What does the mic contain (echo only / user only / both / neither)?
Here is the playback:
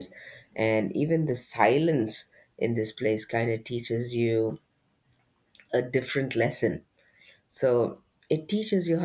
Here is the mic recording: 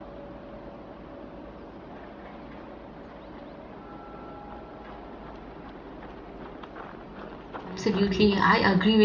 user only